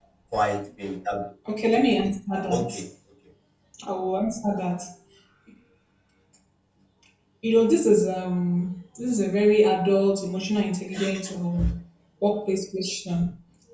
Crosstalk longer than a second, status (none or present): none